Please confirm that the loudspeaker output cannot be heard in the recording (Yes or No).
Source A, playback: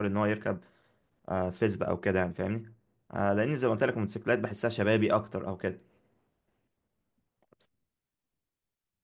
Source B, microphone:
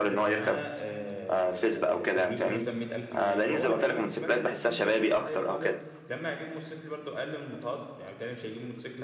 No